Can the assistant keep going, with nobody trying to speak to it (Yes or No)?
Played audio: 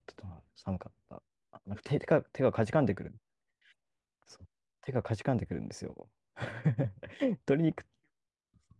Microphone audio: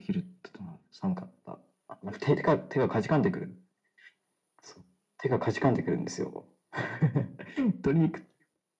Yes